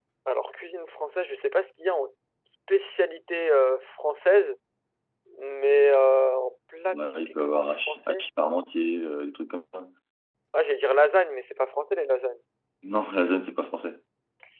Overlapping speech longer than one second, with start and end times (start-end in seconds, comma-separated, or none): 6.9-8.2